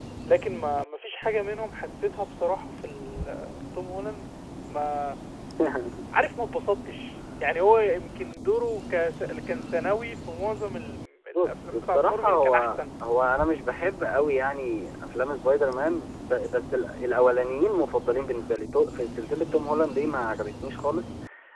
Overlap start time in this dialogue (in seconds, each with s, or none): 11.3 s